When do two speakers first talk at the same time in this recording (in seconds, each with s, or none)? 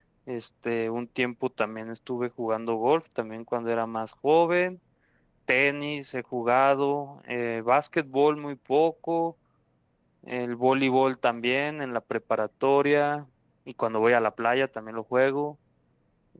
none